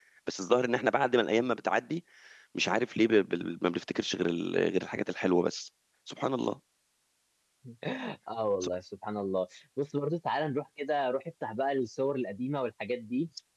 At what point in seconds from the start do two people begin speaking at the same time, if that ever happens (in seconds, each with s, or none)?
none